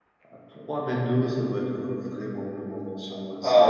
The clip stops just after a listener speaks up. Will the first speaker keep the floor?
No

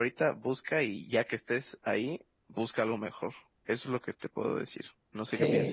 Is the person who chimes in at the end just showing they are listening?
No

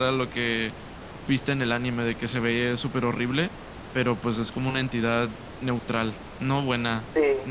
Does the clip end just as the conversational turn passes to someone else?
Yes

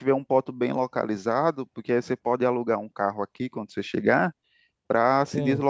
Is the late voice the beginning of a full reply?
No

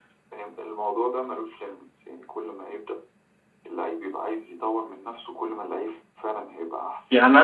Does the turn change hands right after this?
Yes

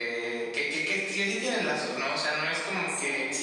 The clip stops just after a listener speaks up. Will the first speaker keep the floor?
Yes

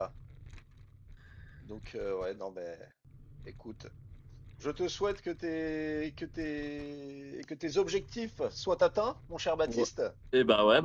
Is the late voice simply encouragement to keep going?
No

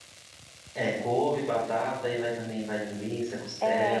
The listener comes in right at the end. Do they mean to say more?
Yes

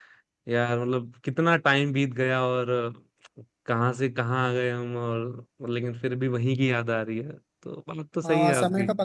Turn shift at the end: Yes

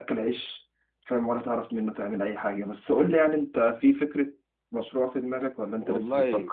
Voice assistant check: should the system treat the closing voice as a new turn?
Yes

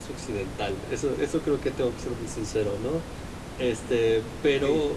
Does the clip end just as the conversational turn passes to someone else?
No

